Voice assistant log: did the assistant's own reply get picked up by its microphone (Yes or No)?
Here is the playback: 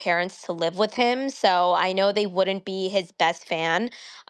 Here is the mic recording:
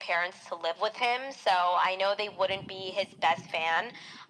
Yes